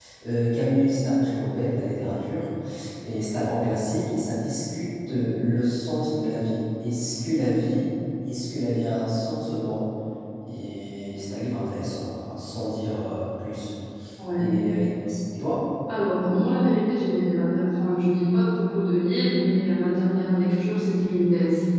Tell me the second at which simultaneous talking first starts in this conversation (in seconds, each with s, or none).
none